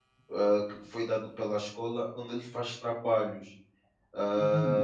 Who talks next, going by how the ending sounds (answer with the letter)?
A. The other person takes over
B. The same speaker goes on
A